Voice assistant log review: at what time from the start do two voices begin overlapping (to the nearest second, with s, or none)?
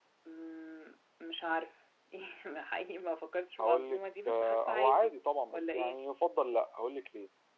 4 s